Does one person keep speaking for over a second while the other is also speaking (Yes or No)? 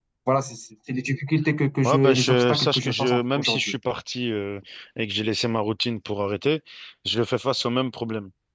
Yes